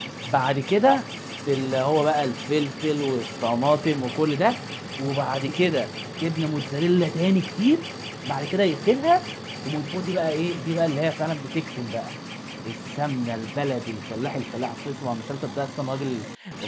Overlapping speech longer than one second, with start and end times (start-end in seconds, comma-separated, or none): none